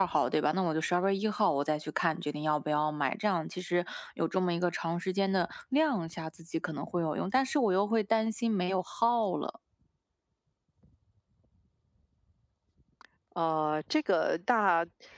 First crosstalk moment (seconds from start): none

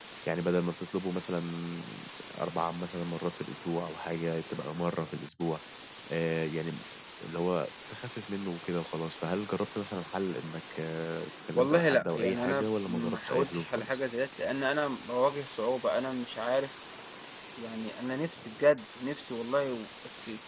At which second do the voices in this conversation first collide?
12 s

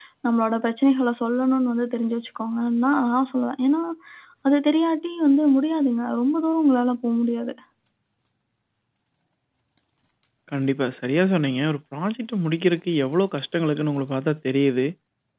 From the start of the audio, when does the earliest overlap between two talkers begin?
none

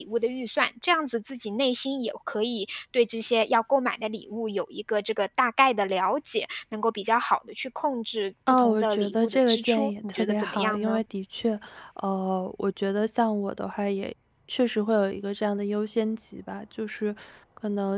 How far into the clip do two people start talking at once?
8 s

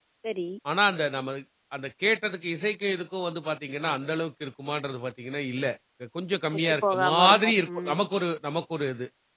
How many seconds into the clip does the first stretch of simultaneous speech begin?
7 s

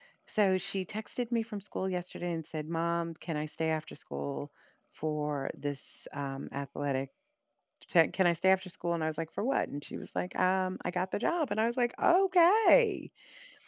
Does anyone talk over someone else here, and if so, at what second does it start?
none

